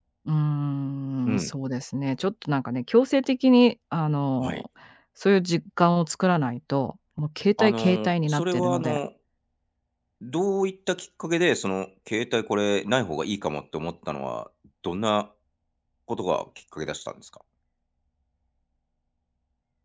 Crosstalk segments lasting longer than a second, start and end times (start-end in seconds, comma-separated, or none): 7.6-9.0